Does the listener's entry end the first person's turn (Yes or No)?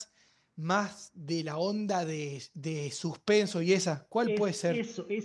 Yes